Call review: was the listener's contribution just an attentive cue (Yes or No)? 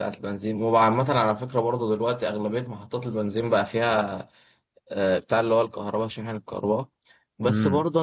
Yes